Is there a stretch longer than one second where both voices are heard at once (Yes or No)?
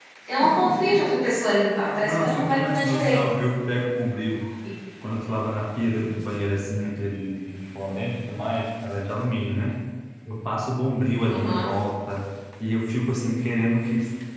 Yes